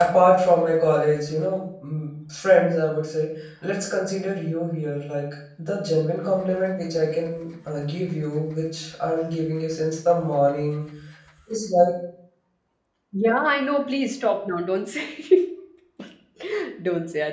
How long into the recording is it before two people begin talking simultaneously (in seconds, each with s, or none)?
none